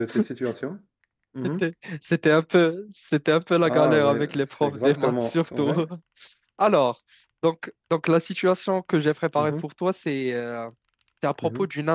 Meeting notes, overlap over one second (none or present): present